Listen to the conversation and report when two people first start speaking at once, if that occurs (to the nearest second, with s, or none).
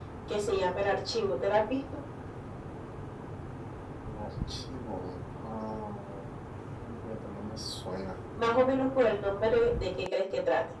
none